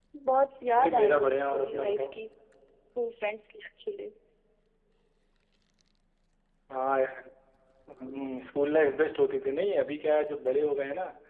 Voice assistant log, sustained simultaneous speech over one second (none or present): present